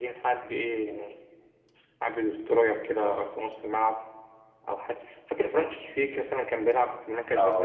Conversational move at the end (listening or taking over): taking over